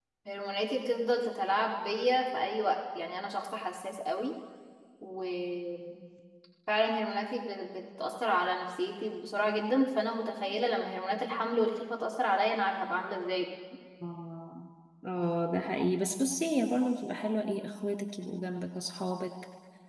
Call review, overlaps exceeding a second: none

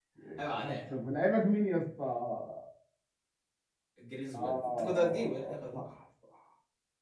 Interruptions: present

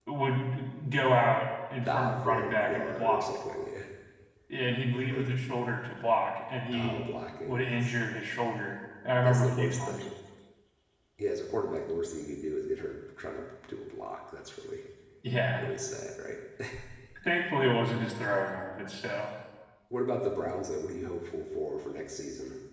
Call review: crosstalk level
present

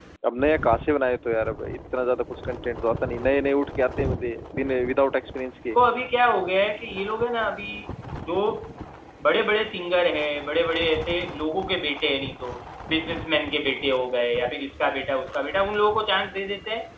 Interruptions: none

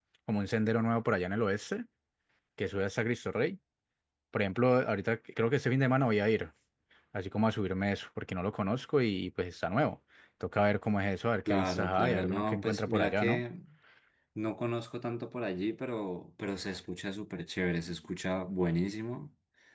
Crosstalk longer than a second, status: present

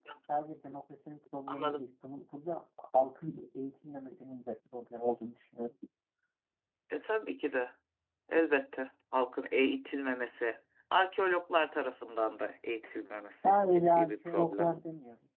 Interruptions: present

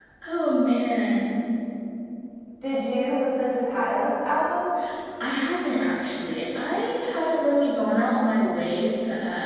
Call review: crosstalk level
none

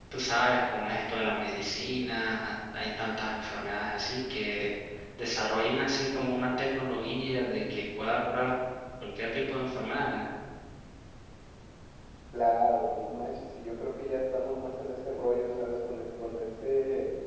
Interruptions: none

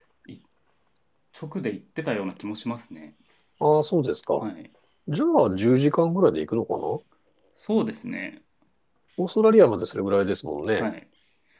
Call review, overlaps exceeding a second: none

